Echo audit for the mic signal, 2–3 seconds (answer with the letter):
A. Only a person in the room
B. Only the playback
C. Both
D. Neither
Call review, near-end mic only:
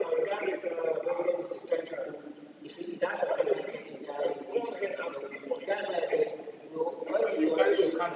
B